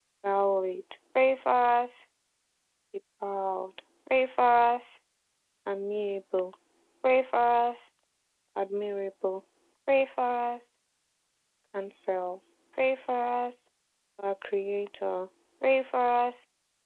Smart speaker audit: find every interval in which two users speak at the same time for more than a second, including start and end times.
none

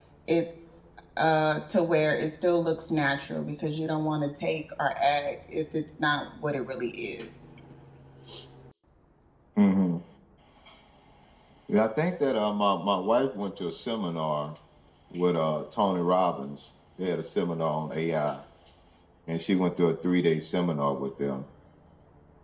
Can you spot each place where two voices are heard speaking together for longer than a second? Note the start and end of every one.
none

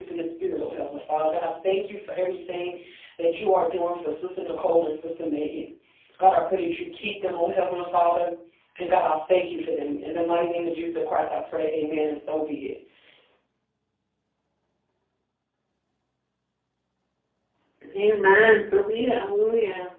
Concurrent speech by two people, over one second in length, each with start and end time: none

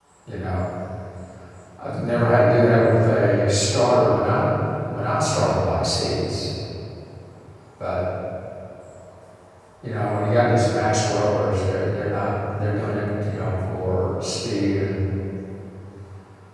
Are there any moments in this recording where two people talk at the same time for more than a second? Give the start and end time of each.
none

